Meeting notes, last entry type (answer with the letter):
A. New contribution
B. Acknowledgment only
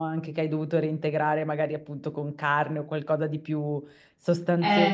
B